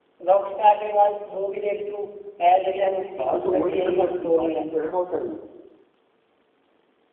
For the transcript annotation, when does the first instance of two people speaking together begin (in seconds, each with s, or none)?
3.2 s